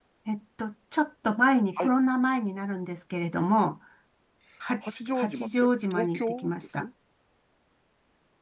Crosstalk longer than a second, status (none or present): present